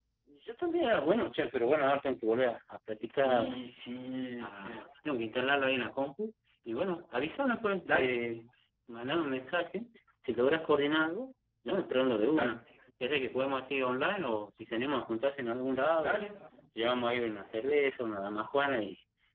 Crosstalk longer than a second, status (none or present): none